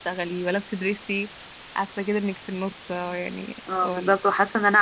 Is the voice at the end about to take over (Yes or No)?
Yes